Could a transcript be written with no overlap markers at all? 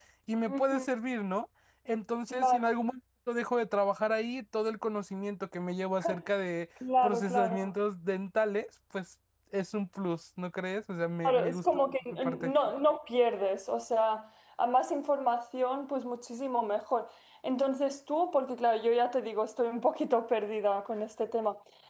No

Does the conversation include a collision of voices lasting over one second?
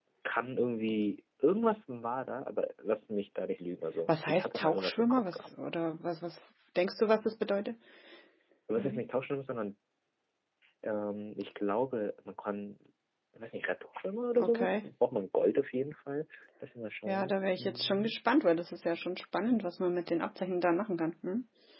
Yes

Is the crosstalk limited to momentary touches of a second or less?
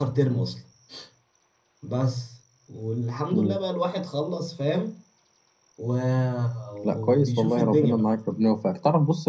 No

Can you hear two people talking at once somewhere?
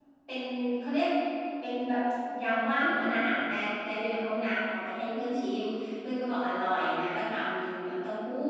No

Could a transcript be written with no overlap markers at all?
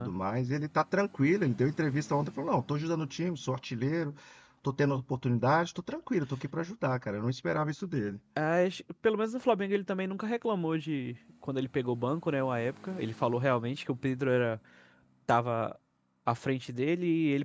Yes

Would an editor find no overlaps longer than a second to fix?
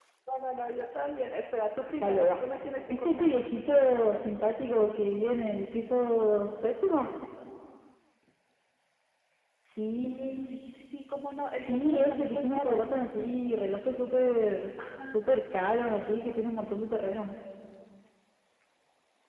No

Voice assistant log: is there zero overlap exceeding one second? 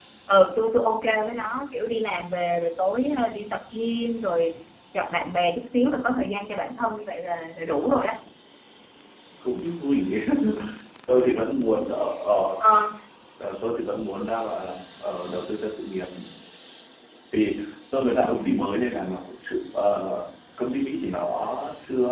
Yes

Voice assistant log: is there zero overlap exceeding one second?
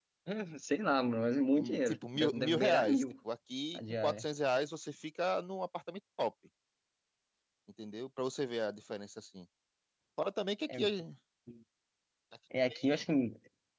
No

